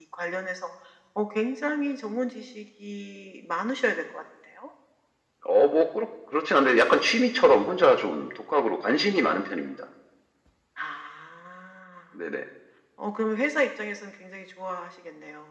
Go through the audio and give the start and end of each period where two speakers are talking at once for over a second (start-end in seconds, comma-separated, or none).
none